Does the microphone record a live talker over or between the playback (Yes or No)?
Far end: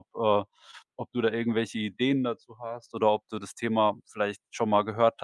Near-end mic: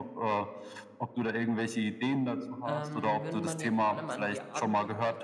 Yes